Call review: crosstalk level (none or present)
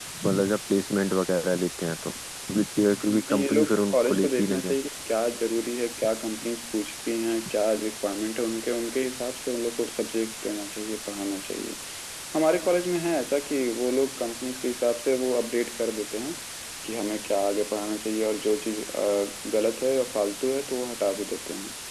present